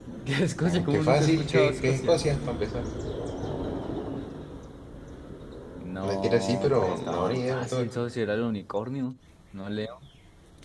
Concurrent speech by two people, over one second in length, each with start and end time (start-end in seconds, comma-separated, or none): 0.6-2.3, 6.0-7.9